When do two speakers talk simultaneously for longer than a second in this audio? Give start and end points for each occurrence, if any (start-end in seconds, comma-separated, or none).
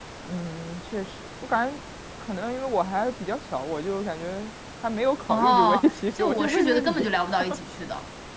5.3-7.1